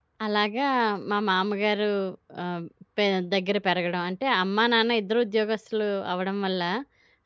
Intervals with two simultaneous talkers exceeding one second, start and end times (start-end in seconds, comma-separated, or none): none